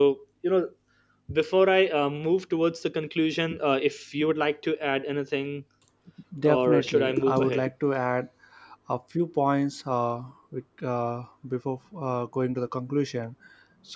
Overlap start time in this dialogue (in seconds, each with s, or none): 6.5 s